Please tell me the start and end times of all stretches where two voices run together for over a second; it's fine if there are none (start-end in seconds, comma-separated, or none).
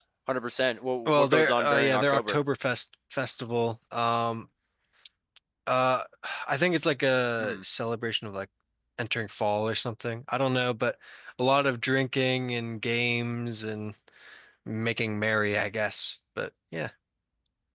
1.1-2.4